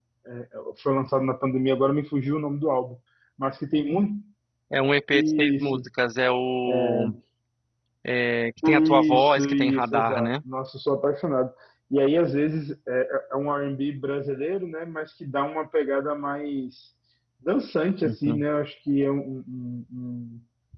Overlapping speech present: Yes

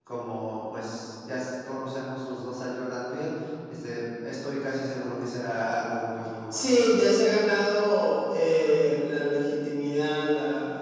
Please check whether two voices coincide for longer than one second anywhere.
No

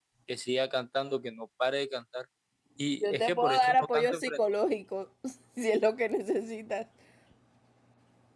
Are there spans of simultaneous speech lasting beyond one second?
Yes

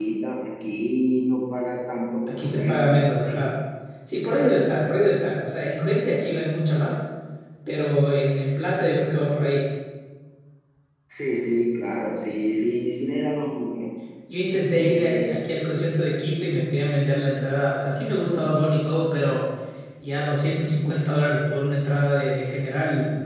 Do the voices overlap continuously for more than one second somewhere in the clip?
Yes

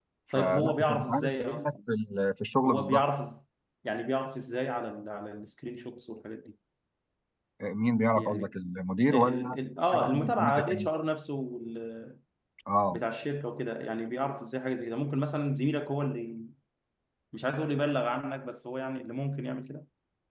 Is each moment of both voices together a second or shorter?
No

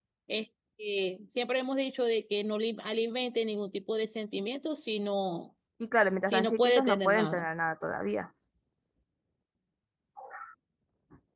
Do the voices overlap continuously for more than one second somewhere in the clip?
Yes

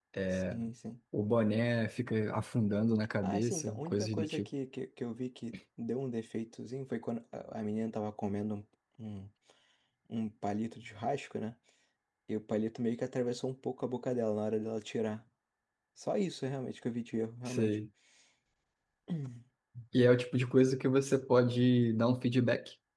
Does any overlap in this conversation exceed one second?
Yes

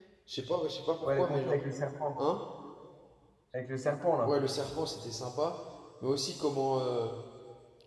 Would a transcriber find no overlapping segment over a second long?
Yes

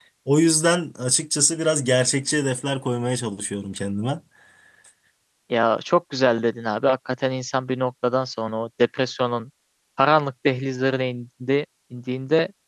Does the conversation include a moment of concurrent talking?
No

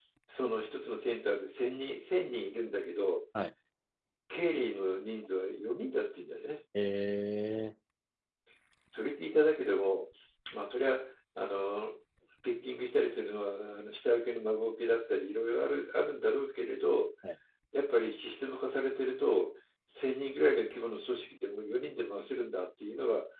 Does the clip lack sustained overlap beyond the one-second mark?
Yes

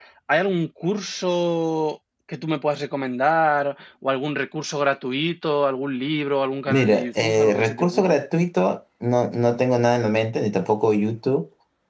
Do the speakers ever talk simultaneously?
Yes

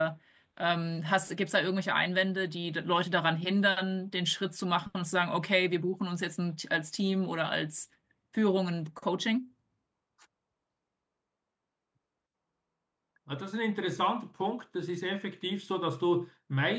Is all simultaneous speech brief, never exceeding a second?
Yes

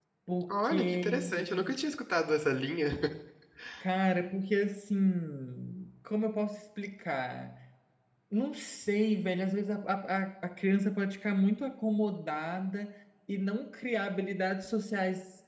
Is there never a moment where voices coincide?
No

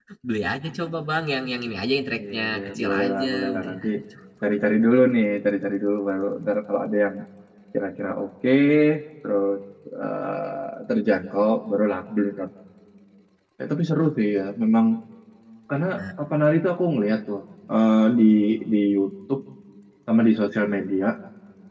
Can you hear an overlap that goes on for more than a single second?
Yes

